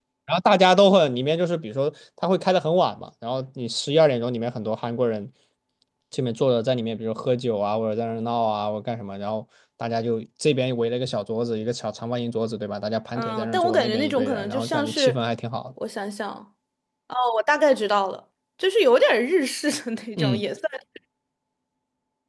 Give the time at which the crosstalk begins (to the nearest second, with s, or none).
13 s